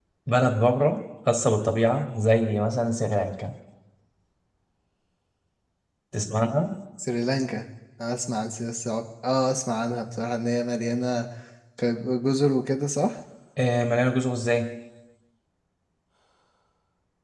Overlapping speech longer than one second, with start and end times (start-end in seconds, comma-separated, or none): none